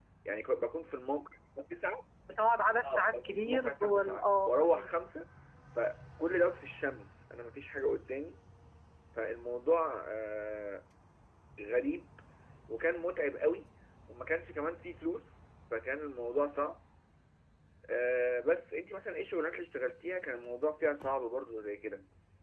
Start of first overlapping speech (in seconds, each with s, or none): 2.8 s